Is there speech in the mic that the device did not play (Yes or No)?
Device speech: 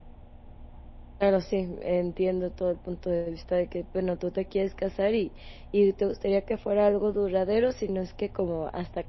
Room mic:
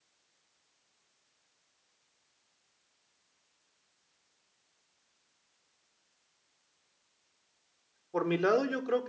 Yes